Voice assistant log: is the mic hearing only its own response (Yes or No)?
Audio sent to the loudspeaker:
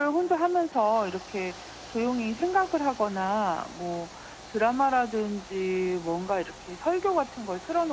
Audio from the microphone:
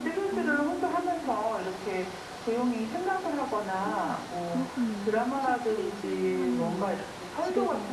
No